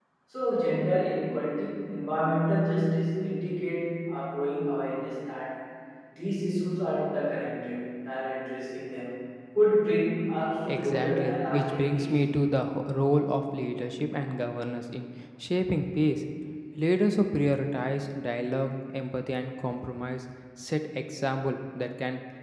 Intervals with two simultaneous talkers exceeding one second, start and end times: 10.7-12.2

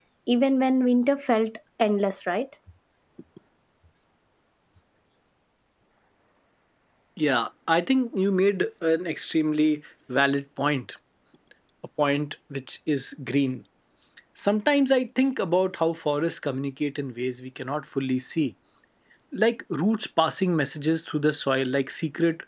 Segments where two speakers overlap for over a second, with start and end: none

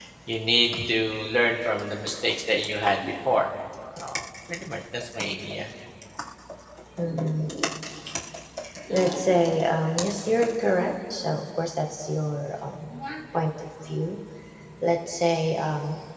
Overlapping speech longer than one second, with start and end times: none

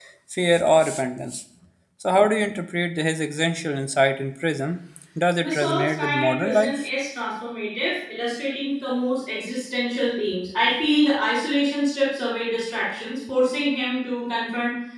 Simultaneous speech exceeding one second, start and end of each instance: 5.4-6.8

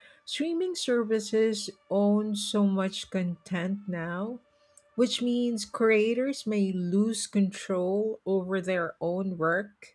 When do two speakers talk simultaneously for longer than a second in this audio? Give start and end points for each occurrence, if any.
none

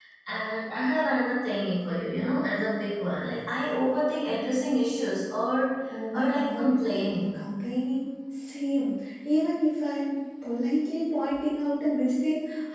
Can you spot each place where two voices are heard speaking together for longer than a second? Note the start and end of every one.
6.1-7.4

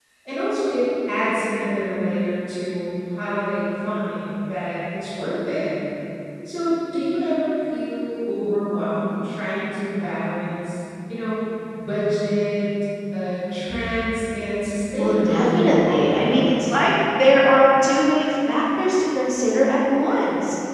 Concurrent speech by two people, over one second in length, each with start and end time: 15.0-16.6

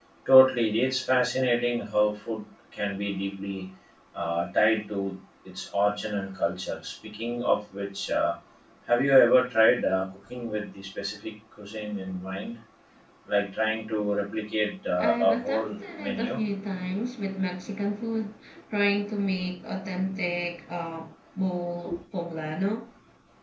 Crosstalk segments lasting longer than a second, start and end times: 15.0-16.4

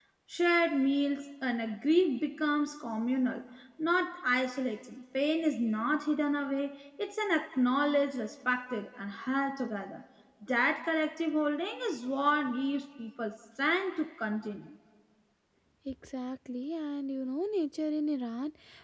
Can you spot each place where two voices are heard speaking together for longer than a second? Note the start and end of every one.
none

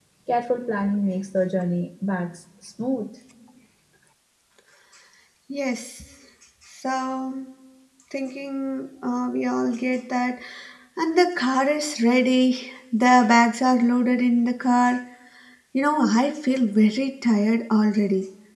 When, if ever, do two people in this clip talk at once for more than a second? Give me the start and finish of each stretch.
none

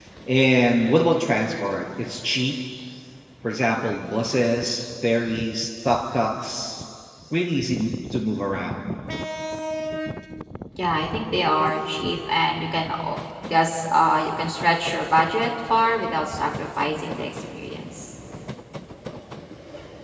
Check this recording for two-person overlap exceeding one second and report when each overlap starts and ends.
none

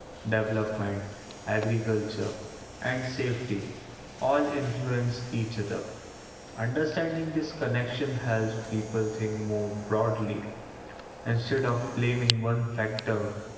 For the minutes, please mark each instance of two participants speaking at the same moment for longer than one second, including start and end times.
none

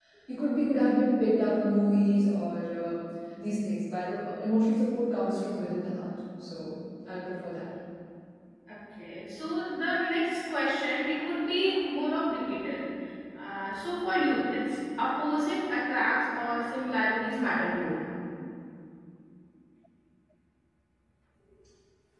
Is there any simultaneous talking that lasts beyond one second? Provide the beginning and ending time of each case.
none

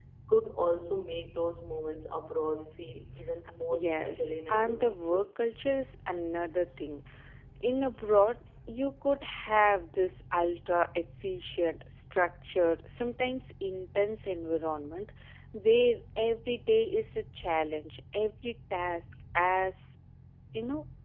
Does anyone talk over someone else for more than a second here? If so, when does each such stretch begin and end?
3.7-5.2

